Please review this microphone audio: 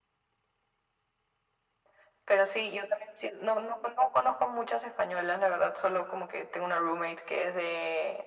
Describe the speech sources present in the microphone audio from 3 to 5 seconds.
echo only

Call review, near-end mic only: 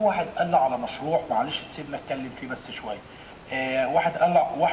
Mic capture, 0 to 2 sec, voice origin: echo only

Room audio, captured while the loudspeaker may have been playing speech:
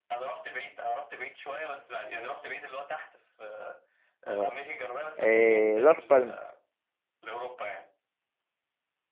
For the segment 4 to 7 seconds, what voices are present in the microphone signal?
both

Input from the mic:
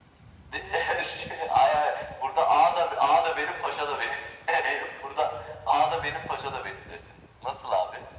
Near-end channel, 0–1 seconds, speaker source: echo only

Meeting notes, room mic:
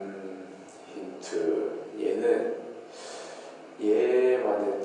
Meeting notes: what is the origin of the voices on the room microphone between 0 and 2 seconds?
echo only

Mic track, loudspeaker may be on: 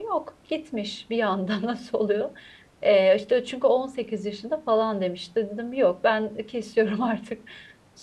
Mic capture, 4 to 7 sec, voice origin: user only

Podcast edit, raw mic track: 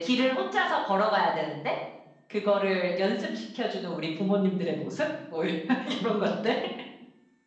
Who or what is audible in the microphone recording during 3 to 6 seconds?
echo only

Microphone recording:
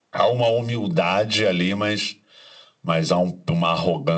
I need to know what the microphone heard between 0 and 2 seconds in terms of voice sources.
echo only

